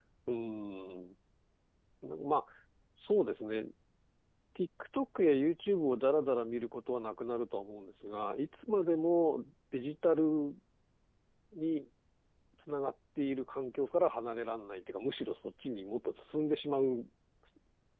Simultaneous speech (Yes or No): No